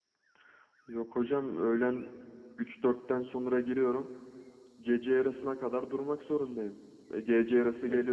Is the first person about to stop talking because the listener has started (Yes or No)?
No